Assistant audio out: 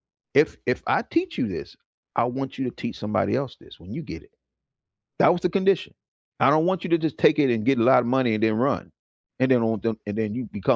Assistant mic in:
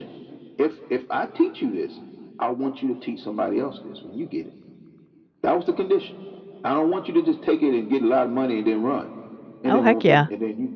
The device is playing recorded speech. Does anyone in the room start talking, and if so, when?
9.7 s

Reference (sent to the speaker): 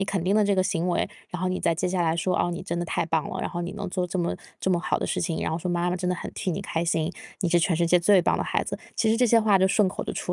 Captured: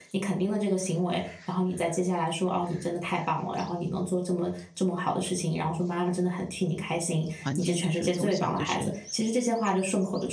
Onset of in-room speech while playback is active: 7.4 s

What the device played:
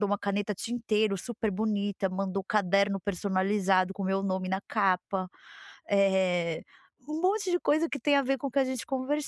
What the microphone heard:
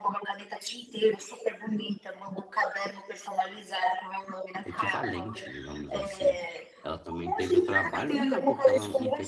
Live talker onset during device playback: 4.6 s

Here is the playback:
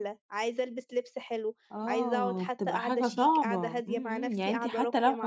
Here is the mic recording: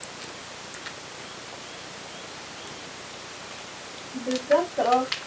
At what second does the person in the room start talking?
4.1 s

